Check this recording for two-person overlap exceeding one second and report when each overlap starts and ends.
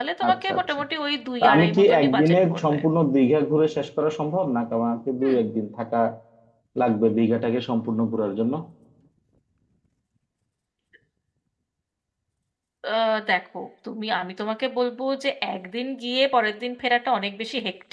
1.4-2.8

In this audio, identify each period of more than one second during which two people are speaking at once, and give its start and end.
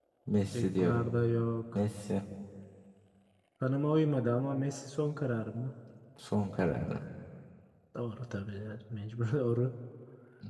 none

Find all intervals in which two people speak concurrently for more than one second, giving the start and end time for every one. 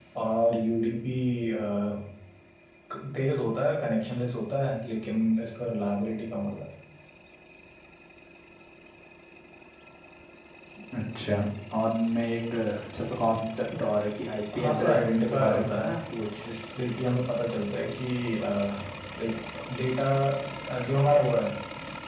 14.6-15.9

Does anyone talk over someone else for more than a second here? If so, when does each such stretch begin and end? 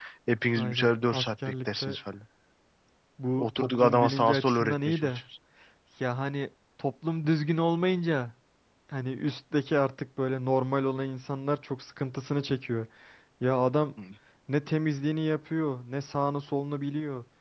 0.6-2.0, 3.6-5.2

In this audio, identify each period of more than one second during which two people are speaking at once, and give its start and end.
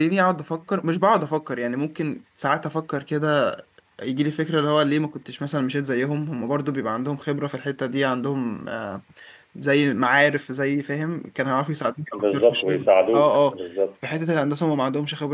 12.1-13.6

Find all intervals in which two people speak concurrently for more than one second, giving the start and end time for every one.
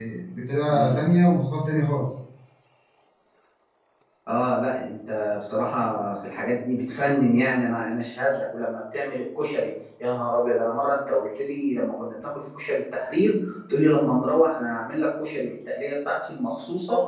none

